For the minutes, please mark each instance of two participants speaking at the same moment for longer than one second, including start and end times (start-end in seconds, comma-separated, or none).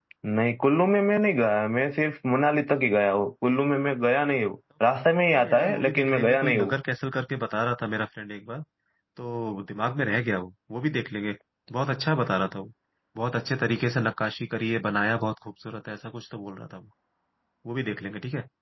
5.4-6.7